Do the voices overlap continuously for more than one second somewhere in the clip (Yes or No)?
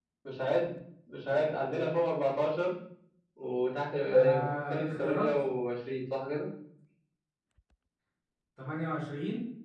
Yes